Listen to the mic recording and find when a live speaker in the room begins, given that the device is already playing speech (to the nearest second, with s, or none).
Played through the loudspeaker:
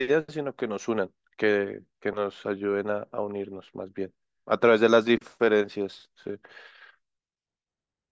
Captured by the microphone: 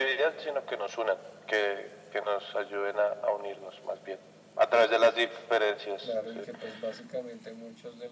6 s